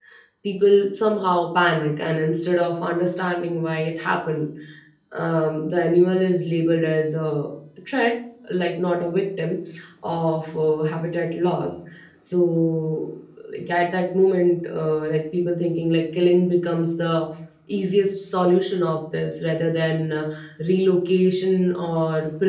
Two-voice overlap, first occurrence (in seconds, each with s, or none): none